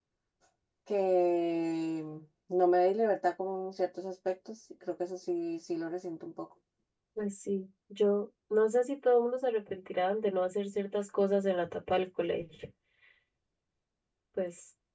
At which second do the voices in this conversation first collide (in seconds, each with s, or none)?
none